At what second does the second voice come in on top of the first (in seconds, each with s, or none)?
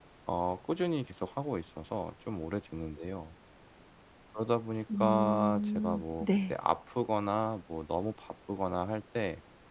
5.0 s